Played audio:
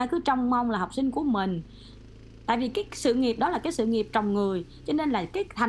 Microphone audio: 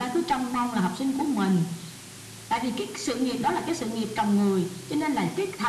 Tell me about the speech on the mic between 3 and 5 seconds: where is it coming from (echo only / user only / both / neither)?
echo only